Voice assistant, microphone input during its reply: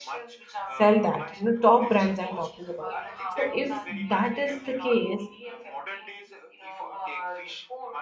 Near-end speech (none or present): present